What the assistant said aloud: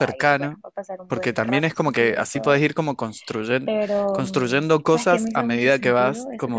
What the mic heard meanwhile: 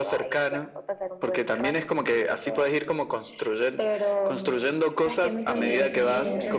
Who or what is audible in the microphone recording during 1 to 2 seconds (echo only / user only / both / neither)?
echo only